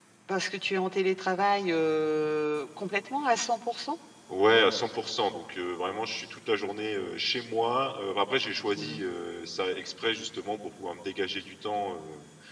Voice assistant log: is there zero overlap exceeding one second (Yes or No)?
Yes